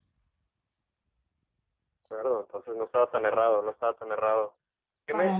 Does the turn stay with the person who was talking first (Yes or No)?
Yes